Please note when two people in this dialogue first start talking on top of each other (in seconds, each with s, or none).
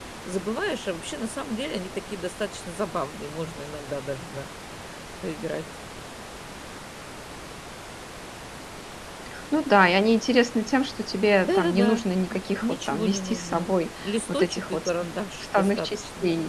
11.4 s